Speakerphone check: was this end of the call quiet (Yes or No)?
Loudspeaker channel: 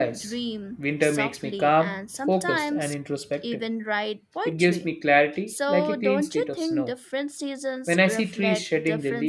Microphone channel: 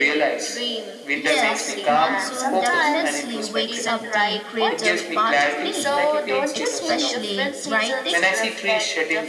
No